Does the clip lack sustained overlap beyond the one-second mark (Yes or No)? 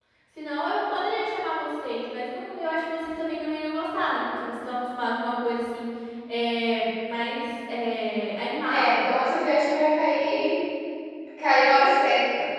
Yes